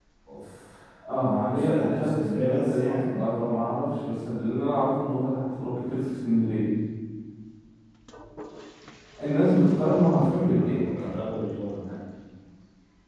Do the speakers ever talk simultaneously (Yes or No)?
Yes